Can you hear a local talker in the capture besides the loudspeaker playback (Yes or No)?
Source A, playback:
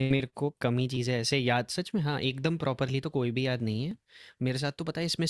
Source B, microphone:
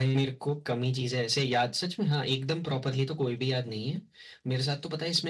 No